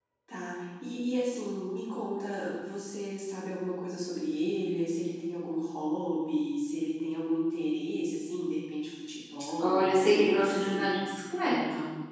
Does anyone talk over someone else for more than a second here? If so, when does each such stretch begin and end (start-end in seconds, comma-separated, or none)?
9.6-10.9